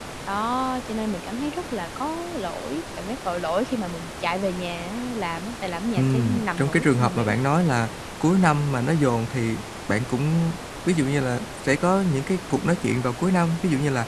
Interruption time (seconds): 5.9 s

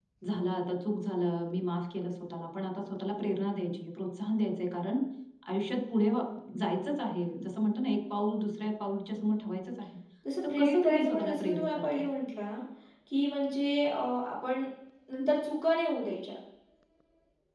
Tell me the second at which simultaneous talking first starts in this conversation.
10.6 s

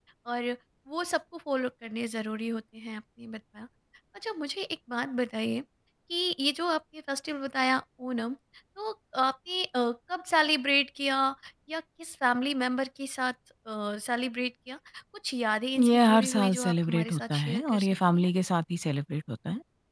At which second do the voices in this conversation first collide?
15.8 s

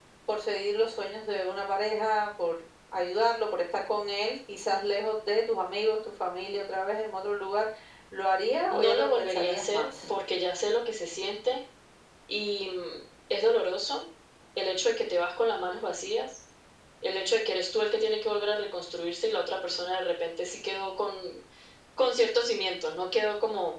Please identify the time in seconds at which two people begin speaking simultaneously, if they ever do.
8.7 s

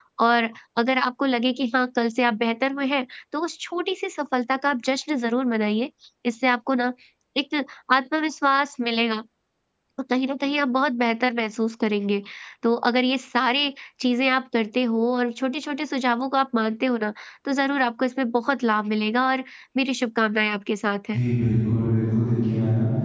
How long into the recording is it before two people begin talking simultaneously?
none

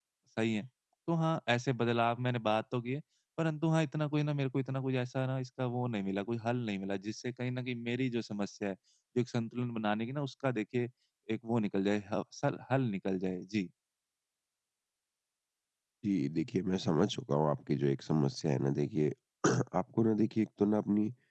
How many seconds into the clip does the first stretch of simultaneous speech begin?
none

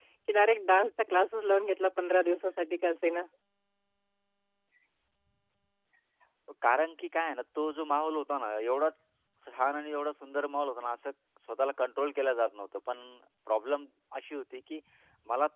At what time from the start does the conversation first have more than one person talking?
none

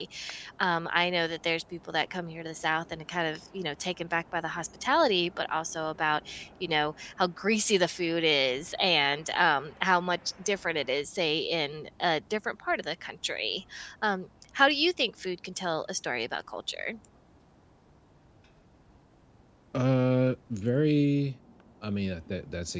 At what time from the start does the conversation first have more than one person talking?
none

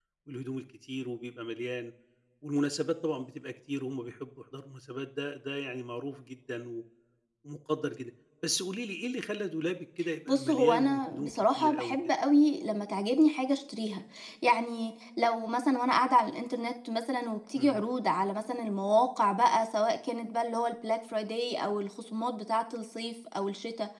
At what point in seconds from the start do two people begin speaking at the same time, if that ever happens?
10.3 s

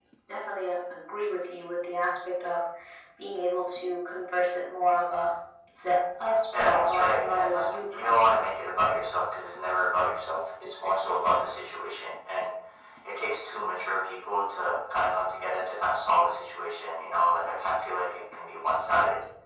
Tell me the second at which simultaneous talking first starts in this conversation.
6.5 s

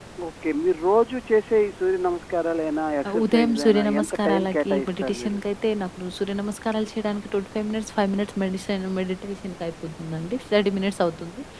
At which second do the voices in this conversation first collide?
3.0 s

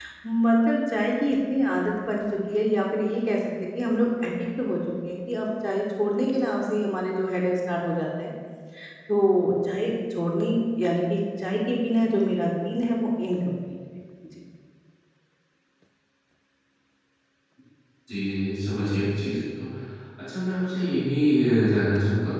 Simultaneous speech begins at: none

